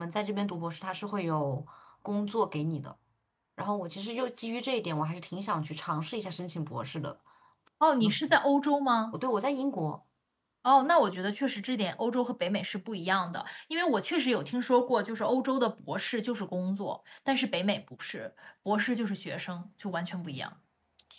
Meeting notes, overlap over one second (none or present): none